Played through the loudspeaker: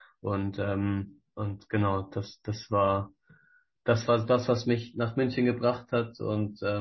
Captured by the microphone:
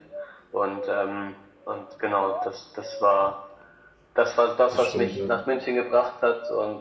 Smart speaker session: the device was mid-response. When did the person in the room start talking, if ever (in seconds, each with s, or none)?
4.7 s